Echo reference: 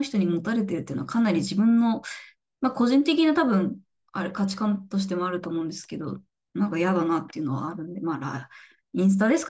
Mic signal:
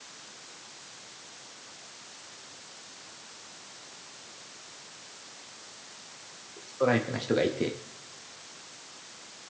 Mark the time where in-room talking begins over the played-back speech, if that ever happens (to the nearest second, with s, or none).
7 s